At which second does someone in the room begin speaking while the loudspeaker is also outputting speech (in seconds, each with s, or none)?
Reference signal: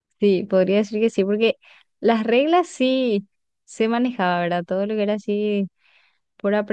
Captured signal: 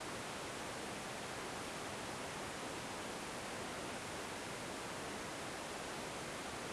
none